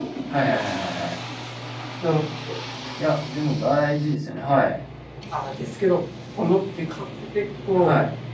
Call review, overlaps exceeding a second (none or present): none